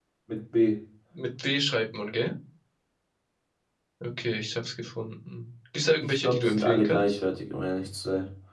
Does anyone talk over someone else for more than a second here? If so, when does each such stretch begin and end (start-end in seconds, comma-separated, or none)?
6.0-7.2